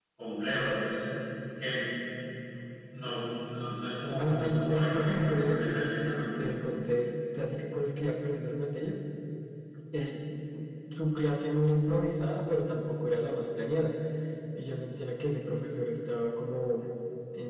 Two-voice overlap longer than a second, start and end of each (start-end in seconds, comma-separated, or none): 3.6-6.4